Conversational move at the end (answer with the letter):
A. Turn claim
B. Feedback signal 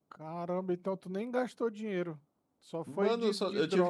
A